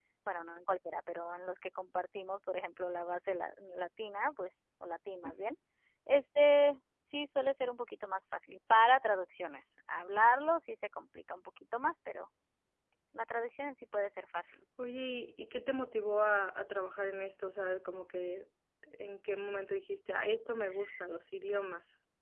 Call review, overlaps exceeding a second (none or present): none